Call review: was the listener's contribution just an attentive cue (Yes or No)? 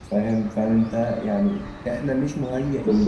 No